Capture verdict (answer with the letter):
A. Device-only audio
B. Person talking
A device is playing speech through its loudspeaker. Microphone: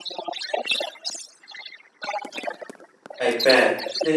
B